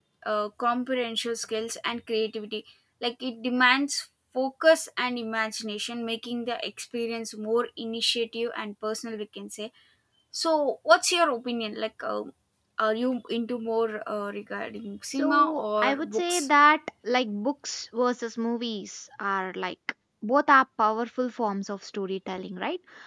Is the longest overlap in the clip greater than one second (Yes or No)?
Yes